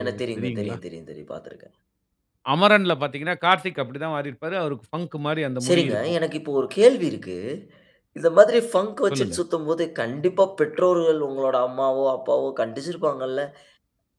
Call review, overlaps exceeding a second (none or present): none